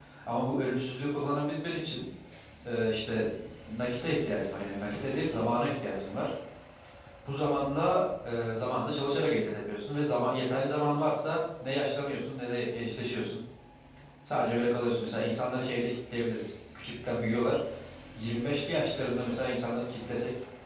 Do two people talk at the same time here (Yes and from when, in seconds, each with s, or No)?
No